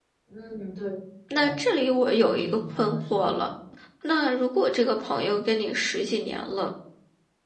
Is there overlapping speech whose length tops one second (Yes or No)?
Yes